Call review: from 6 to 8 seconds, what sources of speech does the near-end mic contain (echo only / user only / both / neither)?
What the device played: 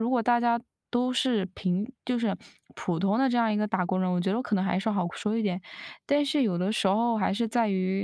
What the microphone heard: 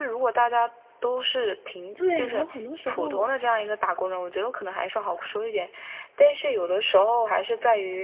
echo only